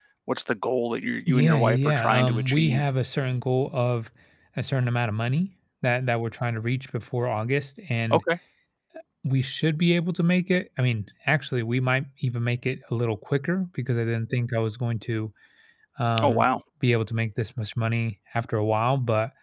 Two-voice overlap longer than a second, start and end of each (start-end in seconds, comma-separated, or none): 1.3-2.8